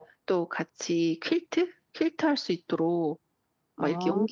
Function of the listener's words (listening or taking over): listening